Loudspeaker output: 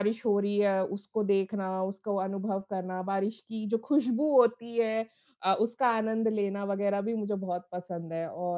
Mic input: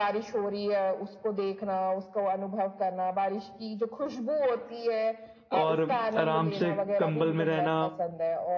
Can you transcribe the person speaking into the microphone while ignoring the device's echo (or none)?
और आराम से कंबल में रहना।